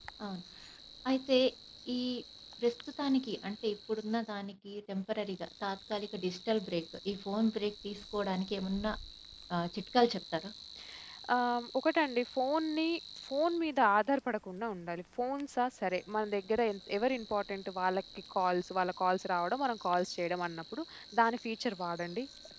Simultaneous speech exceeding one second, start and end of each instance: none

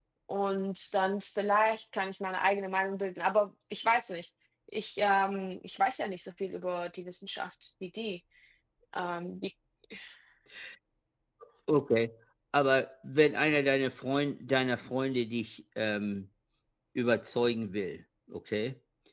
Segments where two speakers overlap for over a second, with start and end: none

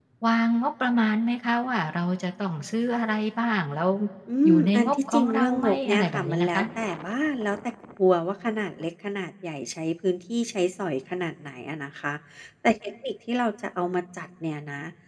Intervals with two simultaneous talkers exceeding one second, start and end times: 4.4-6.6

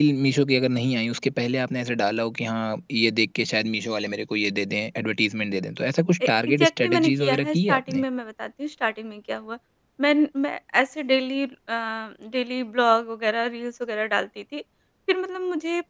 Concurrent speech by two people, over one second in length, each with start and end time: 6.3-8.0

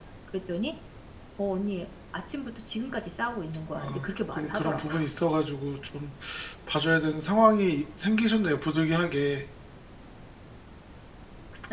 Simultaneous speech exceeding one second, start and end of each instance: 3.8-5.0

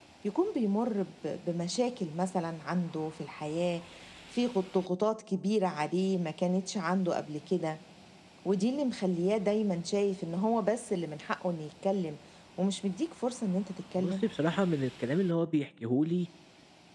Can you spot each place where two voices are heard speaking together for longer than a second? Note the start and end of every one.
none

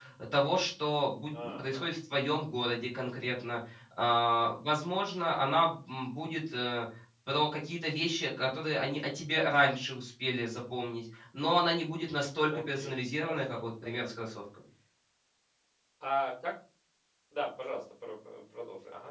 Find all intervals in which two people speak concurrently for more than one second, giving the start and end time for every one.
12.5-14.2

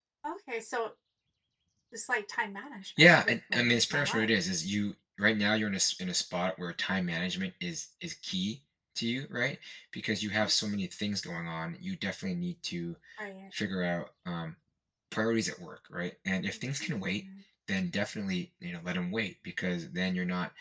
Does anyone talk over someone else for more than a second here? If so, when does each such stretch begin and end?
3.0-4.3

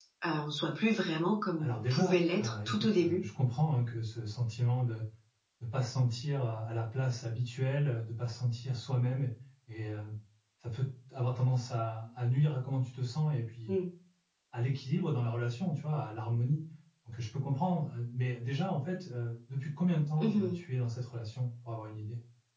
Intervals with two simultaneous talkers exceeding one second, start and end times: 1.6-3.2

